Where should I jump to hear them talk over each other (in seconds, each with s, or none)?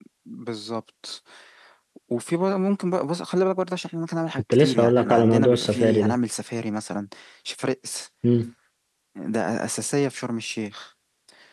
4.5 s